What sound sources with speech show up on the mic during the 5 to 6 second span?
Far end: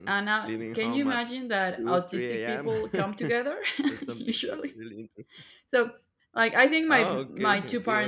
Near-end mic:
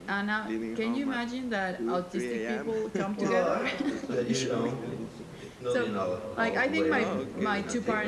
both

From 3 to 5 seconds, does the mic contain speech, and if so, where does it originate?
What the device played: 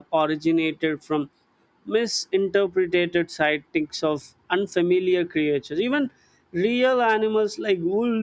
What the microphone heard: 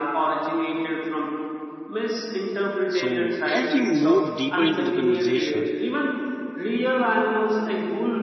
both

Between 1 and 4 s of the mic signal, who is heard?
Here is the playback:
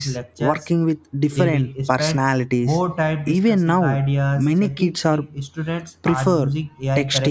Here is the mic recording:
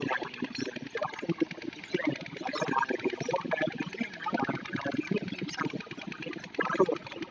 echo only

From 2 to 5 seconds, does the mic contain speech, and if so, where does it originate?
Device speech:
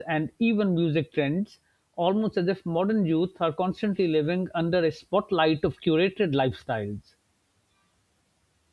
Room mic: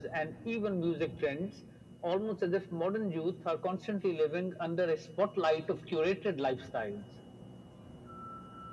echo only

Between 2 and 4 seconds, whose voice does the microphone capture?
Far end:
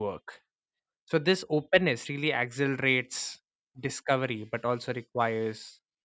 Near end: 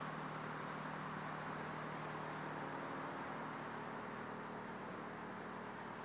neither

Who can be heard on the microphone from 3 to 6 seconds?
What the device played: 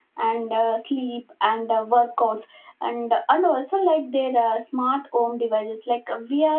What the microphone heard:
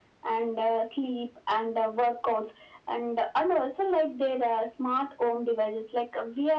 echo only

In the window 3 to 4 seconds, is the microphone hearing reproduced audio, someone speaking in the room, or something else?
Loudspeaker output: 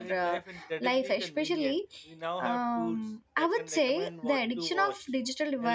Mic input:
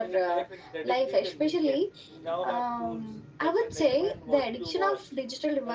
echo only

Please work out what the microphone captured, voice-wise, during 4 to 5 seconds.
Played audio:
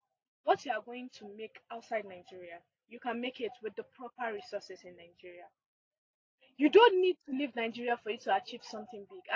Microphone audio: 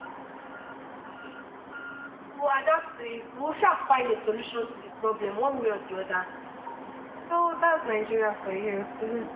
user only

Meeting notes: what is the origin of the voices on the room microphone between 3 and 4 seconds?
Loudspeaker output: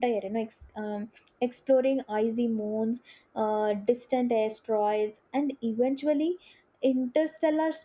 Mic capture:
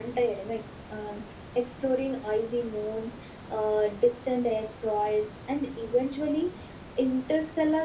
echo only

